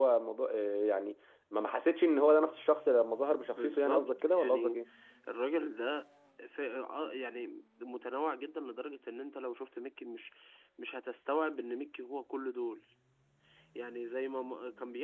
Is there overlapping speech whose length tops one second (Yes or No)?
Yes